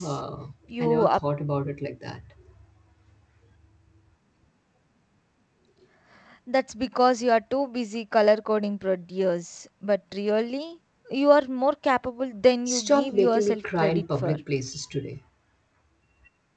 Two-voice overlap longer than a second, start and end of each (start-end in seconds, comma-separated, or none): 12.7-14.4